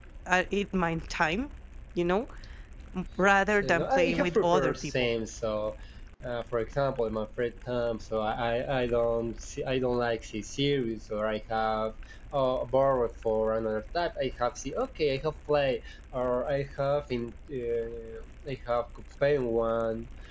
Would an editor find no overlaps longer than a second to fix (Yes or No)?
No